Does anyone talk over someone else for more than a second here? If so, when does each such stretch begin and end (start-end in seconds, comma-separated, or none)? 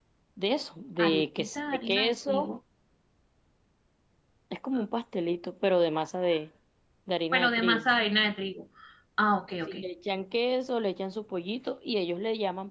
1.0-2.6